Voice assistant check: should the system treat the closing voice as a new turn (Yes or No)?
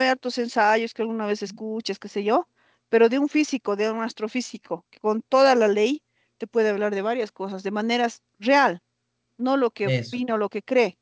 No